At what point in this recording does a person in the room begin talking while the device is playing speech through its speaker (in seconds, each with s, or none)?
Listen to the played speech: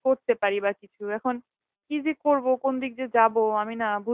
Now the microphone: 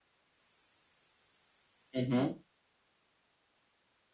1.9 s